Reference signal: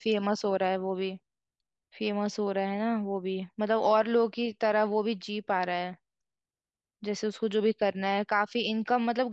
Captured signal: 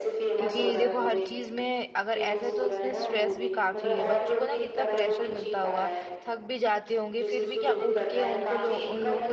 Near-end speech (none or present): present